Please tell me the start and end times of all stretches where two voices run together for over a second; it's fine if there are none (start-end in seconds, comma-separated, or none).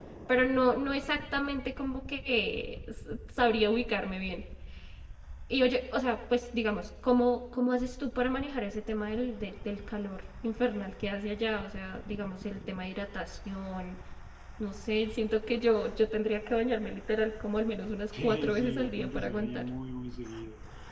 18.2-19.7